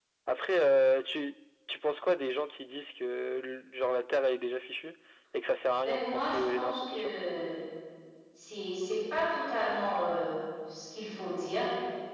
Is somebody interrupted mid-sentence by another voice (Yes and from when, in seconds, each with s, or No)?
Yes, from 5.7 s